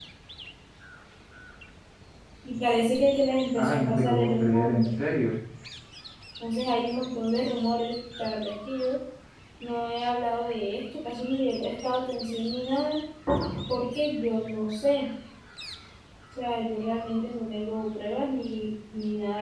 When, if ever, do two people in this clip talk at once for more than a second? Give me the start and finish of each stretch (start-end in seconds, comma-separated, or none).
3.5-4.9